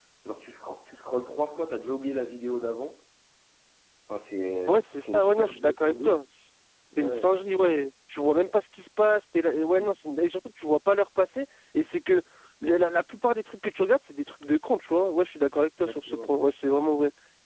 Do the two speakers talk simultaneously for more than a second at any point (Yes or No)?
Yes